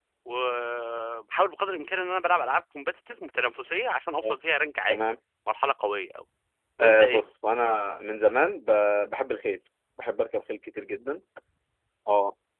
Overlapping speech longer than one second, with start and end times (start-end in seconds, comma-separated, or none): none